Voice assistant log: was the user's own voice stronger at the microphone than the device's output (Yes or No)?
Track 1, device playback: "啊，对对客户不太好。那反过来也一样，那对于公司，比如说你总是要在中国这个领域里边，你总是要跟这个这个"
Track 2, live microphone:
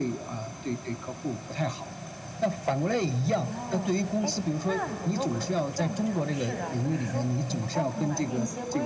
No